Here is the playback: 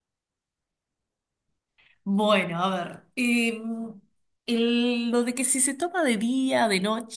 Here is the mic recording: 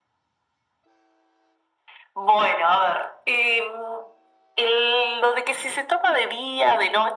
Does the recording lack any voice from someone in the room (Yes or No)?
Yes